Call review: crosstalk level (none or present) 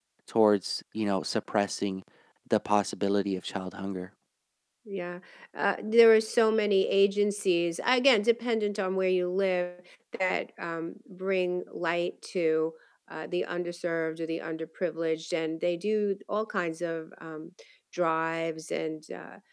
none